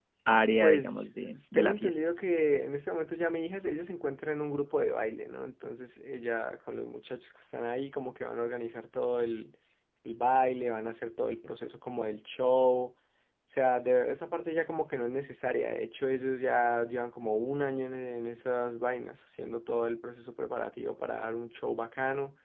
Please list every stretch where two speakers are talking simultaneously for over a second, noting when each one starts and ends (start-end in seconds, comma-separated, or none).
0.6-2.0